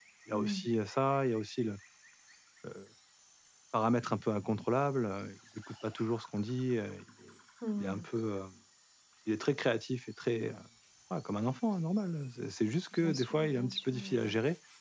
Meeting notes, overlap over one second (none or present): present